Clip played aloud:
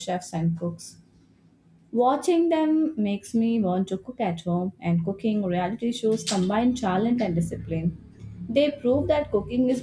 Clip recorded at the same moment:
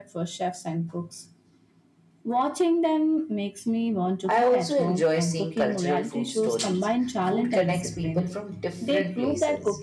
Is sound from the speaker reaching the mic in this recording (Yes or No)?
Yes